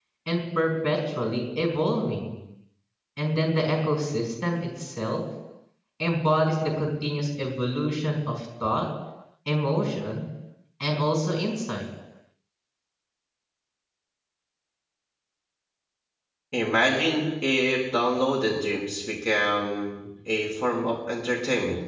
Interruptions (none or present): none